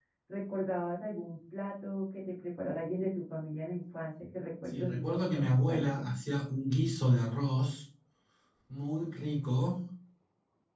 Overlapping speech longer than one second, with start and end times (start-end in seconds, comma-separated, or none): 4.7-6.1